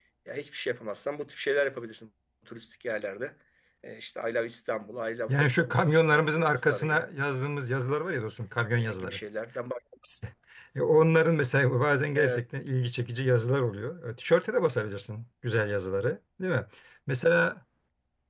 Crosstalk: present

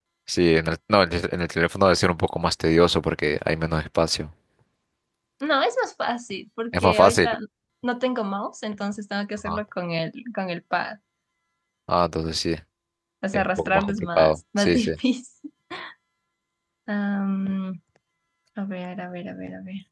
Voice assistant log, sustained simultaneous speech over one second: present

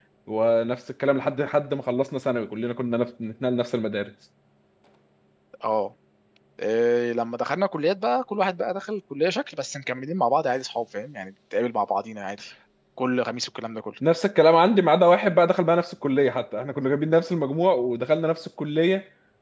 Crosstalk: none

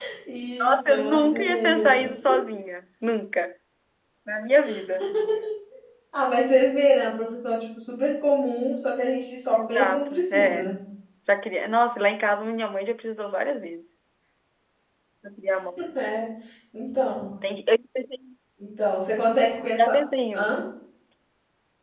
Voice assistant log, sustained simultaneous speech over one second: present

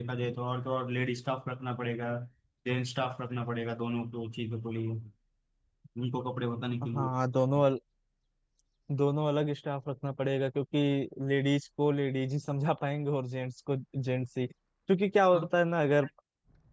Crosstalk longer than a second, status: none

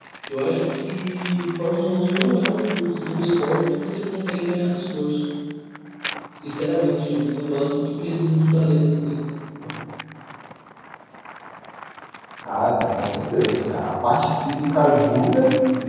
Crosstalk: none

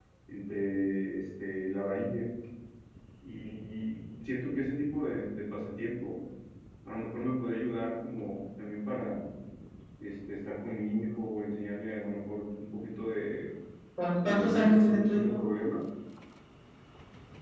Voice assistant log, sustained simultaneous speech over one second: present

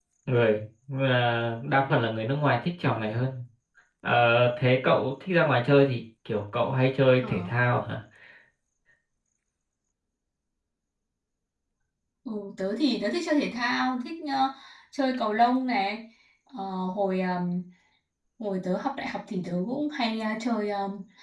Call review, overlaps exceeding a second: none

